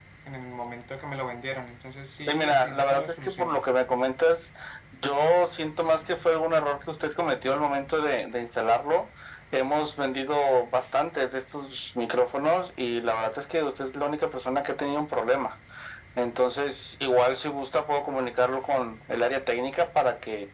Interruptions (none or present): present